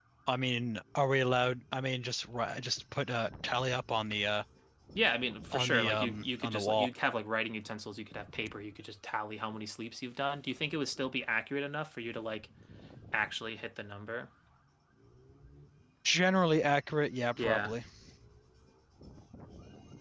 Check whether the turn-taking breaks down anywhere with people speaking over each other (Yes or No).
Yes